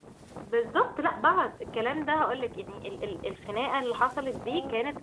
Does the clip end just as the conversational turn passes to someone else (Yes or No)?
No